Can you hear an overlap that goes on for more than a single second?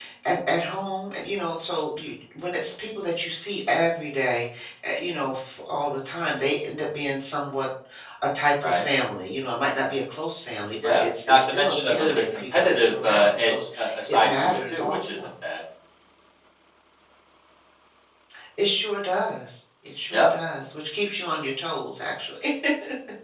Yes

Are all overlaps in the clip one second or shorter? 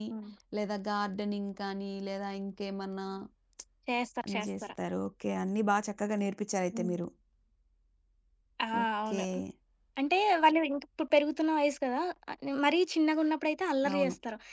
Yes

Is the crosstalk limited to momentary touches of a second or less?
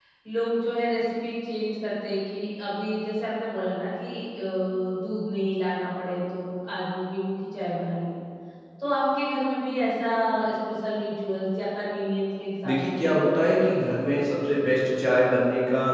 No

